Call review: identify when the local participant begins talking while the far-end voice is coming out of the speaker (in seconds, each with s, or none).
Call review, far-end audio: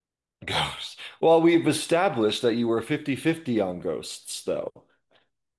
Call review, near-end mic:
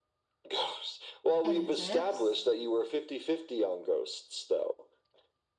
1.4 s